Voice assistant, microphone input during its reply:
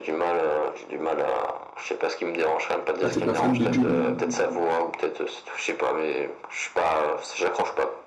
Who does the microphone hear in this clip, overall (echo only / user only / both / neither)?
both